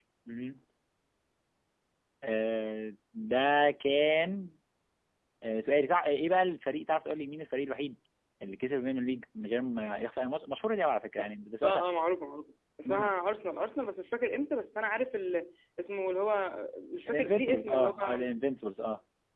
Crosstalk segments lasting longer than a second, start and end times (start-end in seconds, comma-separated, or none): 17.1-18.3